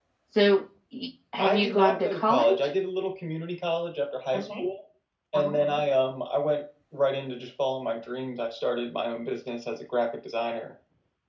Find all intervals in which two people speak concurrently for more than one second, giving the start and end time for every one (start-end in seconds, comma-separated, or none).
1.4-2.7